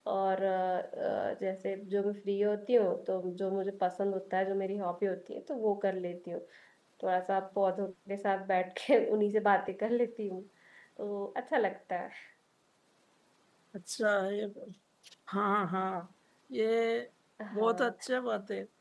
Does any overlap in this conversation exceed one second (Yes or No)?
No